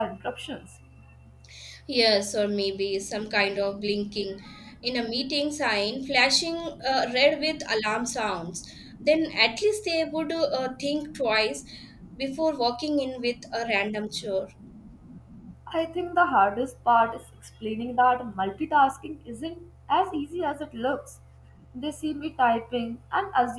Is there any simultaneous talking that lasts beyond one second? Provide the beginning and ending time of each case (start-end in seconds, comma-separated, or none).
none